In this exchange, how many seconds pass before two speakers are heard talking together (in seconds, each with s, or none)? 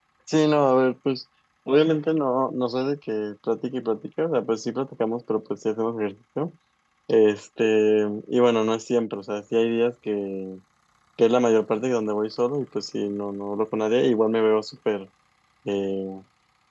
none